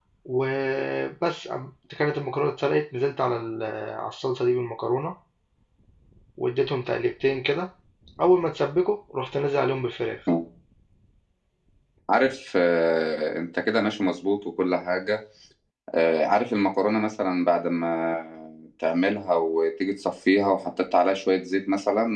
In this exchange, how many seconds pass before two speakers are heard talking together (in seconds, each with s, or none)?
none